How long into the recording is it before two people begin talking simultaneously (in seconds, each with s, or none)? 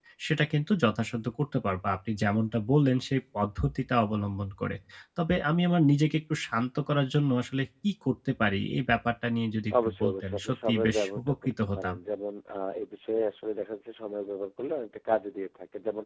9.7 s